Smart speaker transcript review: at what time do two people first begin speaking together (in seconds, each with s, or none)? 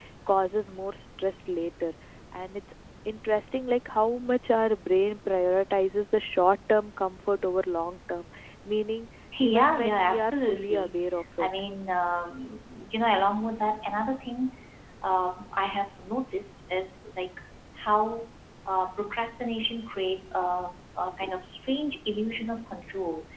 9.3 s